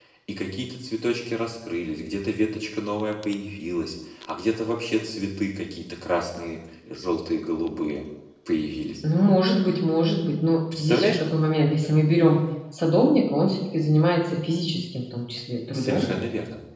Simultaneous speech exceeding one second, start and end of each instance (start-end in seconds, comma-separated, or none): none